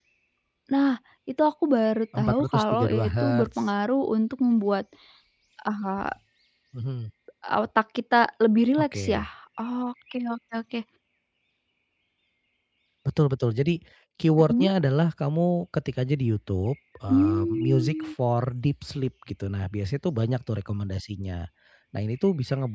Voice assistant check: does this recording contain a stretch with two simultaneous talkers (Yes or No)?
Yes